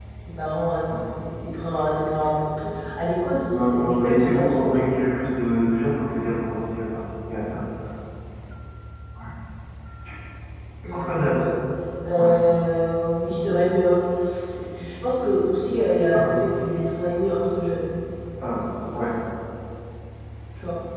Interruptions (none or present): present